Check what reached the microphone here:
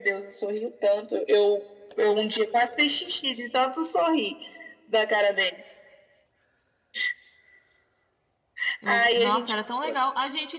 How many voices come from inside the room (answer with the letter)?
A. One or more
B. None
A